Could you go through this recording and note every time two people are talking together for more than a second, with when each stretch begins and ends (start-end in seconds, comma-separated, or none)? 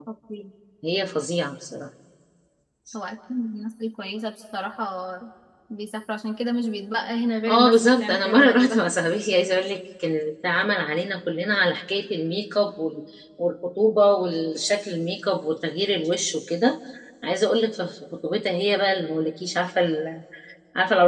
7.5-8.8